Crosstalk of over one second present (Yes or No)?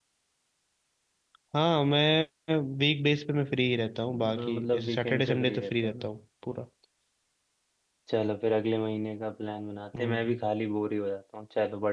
Yes